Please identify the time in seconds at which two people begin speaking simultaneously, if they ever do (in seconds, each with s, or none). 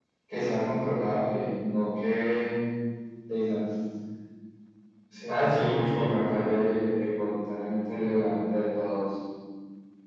5.3 s